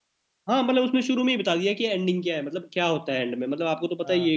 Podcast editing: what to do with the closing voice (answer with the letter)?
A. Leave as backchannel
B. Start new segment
B